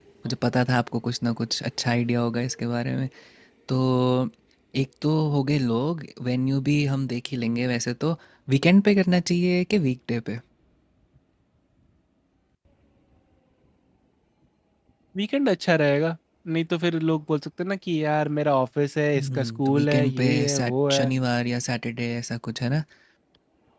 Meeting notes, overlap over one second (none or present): present